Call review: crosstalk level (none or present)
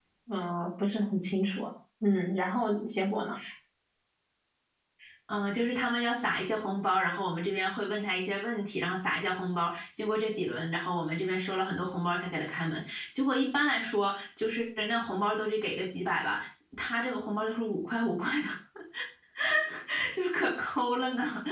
none